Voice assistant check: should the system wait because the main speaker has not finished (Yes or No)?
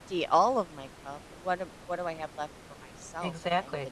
No